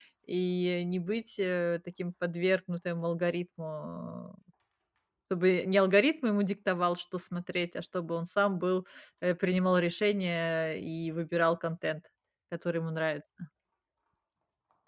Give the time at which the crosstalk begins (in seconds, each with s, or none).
none